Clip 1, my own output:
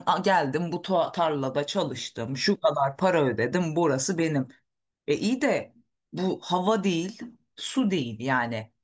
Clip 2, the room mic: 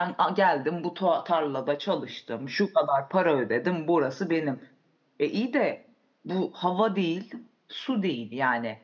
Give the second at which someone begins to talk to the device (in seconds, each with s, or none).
none